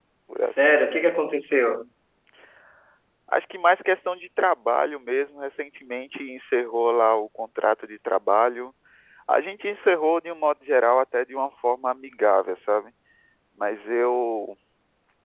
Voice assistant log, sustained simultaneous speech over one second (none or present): none